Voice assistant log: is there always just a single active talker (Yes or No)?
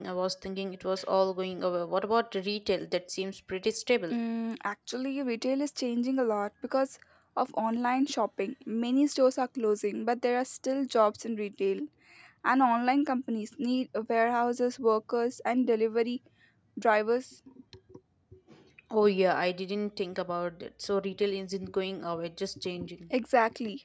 Yes